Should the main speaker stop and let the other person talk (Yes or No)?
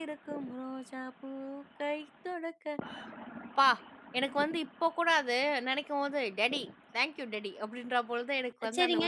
Yes